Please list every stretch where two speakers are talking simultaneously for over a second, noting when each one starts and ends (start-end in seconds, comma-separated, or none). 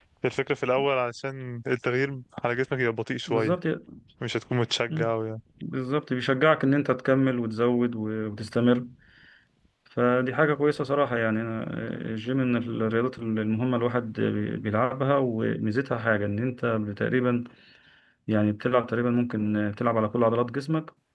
none